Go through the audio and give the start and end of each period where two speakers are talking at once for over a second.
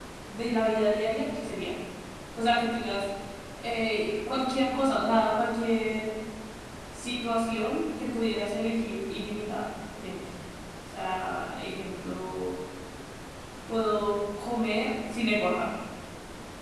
none

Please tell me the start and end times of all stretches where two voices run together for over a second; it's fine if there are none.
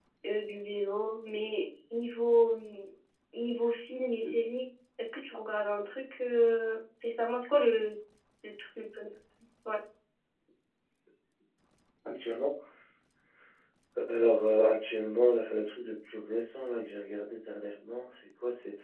none

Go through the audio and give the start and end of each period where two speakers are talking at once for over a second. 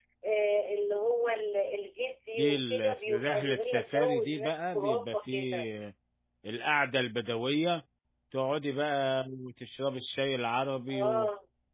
2.3-5.7

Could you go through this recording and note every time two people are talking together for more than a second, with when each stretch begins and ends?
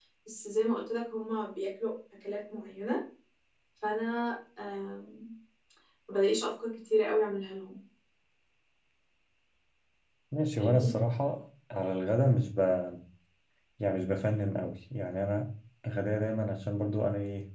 none

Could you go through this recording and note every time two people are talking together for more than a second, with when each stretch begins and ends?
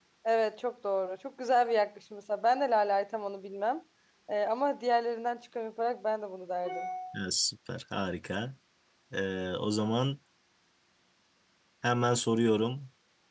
none

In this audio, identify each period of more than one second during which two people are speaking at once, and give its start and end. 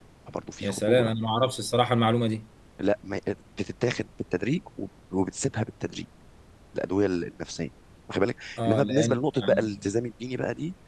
8.7-9.9

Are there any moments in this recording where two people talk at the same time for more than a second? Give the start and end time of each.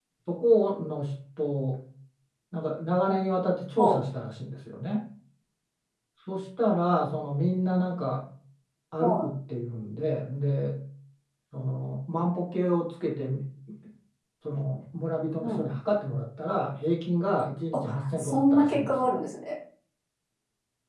17.7-19.2

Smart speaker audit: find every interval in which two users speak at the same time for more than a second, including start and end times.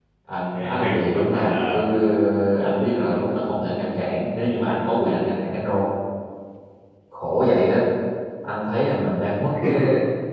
0.5-1.8

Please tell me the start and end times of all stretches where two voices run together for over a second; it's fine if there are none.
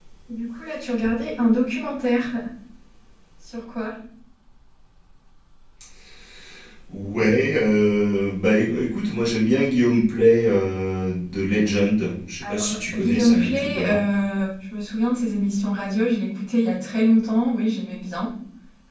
12.4-14.0

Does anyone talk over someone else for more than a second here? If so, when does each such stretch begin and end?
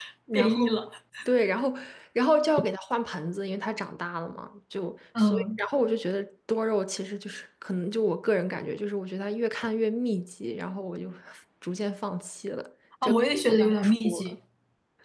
13.0-14.3

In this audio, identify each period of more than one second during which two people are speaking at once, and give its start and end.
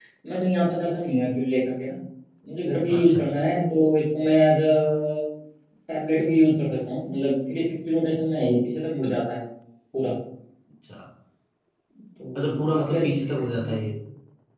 12.3-13.9

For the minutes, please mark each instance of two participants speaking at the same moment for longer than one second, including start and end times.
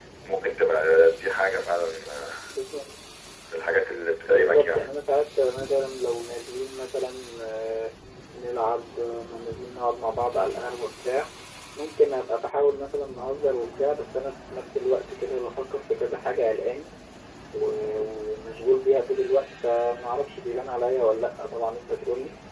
none

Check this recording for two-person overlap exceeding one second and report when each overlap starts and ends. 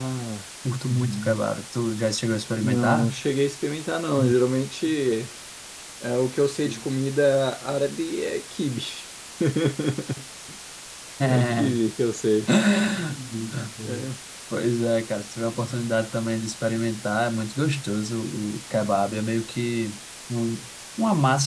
none

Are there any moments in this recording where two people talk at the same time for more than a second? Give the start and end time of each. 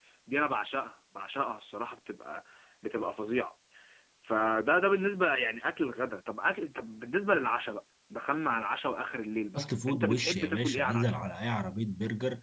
9.6-11.2

